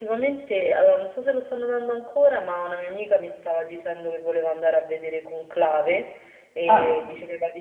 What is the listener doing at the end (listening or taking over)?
listening